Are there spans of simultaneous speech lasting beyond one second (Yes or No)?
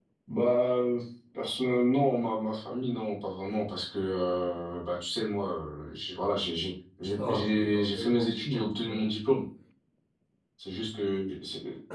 Yes